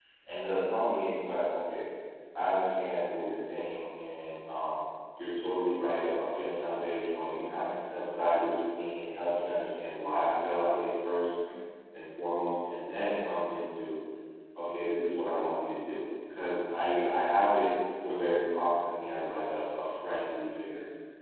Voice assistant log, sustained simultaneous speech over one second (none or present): none